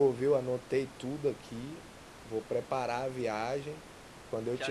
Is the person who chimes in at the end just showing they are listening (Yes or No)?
No